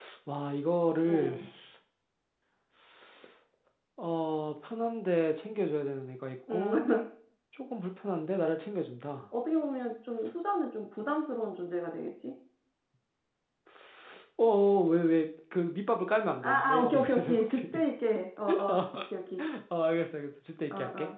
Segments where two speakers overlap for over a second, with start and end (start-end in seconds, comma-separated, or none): 16.4-17.6